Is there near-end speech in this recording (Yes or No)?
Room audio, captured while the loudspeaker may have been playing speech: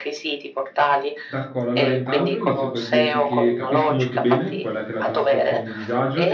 Yes